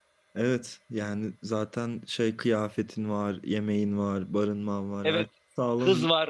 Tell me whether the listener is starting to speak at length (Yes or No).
Yes